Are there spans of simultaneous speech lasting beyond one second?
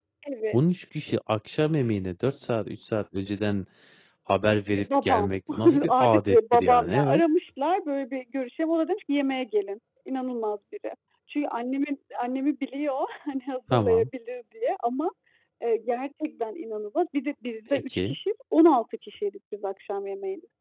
Yes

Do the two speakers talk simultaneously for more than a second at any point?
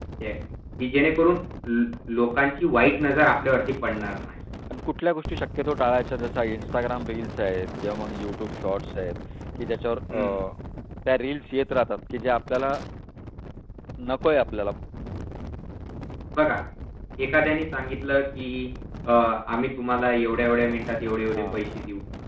No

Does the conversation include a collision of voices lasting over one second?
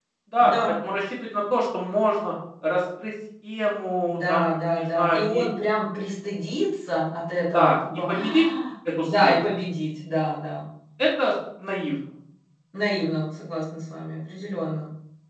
Yes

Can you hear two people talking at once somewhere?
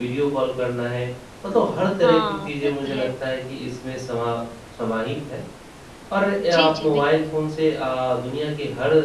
Yes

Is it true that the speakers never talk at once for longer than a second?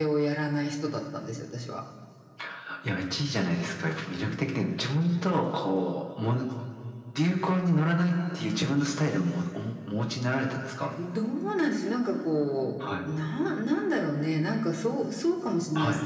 Yes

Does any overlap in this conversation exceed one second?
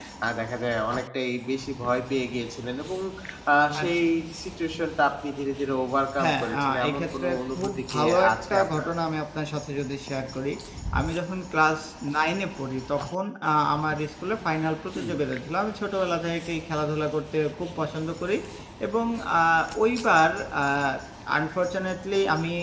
Yes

